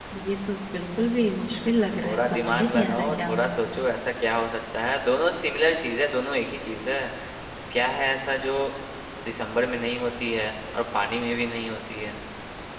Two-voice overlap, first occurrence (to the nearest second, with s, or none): 2 s